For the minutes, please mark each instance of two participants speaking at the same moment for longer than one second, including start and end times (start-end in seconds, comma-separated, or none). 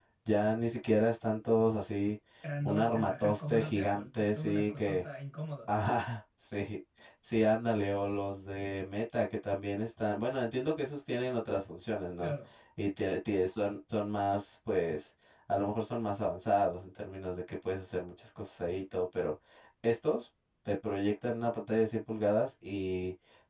2.6-5.0